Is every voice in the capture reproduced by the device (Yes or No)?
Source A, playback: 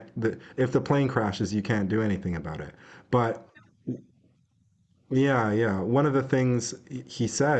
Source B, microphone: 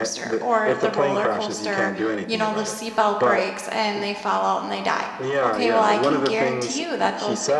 No